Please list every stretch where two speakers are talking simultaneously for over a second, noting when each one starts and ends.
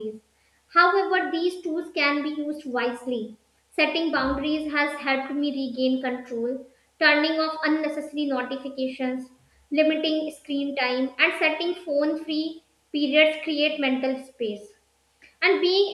none

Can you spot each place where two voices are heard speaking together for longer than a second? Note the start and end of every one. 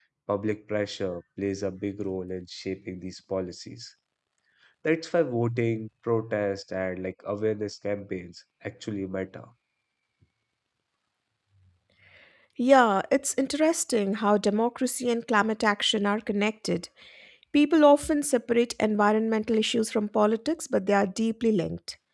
none

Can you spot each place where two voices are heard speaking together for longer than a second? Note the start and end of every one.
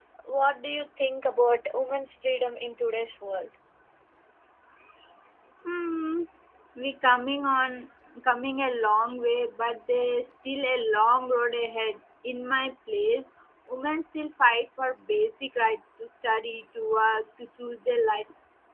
none

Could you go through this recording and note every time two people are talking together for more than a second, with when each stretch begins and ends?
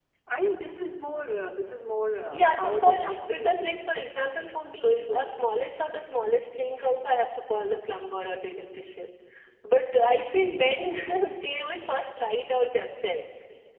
2.3-3.8

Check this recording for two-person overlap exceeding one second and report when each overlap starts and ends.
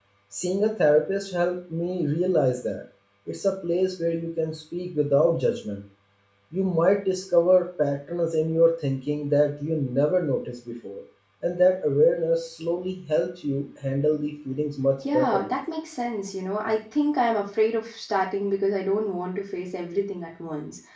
none

